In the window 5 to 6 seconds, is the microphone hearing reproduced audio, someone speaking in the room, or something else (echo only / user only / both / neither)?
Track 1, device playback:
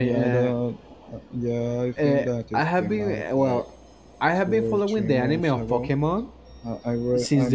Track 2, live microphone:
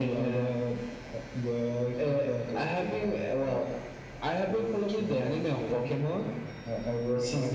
echo only